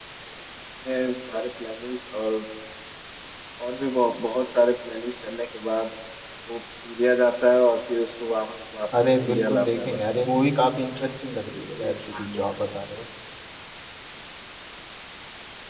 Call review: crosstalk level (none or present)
present